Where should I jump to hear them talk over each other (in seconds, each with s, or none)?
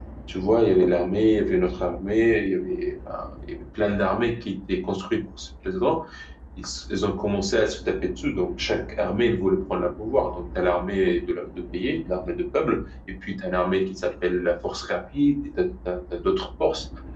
none